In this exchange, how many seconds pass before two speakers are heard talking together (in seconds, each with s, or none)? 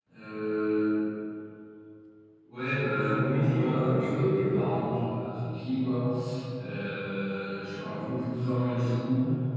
2.9 s